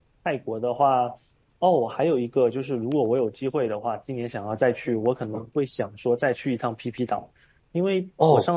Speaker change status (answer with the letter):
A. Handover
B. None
B